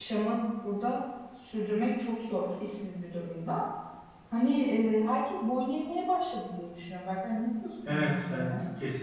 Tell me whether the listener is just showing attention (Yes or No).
No